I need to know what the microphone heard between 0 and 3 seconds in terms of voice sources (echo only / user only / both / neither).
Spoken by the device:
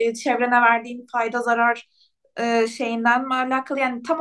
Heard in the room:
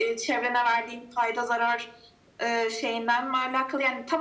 echo only